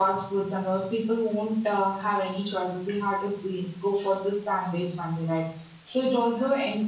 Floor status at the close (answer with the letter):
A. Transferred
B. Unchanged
B